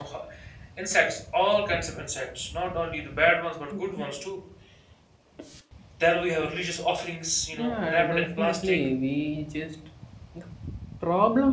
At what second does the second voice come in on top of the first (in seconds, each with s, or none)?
7.5 s